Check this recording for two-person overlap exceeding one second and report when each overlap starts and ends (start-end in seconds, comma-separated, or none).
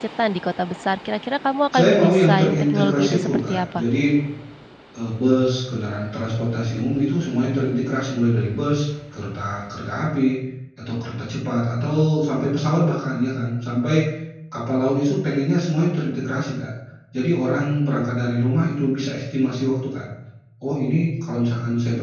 1.7-3.8